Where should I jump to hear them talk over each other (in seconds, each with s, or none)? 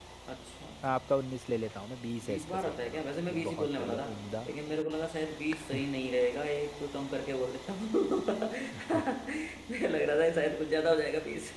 2.2 s